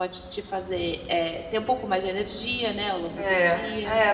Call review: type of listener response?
taking over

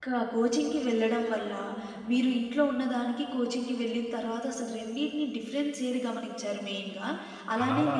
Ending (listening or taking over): listening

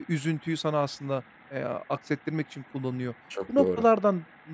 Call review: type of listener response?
listening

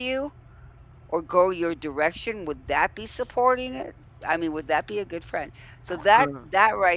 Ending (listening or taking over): listening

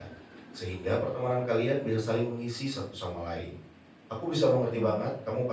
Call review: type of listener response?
listening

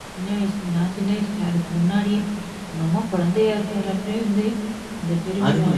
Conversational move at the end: taking over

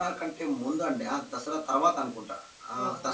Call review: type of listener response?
listening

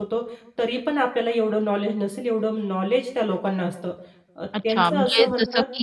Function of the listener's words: taking over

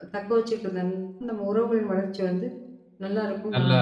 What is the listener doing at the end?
taking over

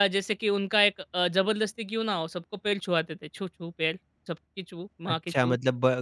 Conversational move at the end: taking over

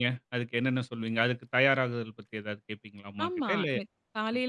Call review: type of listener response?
taking over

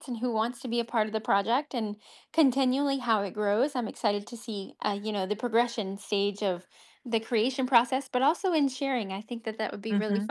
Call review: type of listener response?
taking over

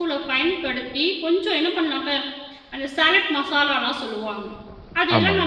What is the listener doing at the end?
listening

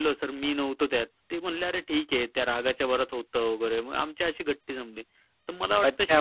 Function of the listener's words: taking over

